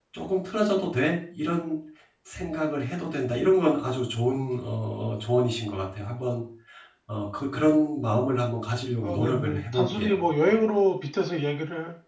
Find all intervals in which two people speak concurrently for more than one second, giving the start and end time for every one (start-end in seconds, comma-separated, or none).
9.0-10.5